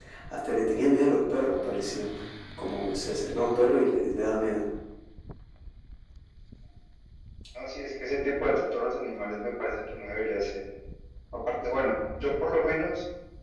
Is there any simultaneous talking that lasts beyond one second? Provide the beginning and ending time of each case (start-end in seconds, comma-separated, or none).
none